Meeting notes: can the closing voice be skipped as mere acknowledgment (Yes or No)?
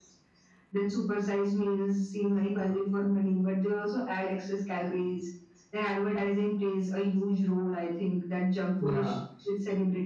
Yes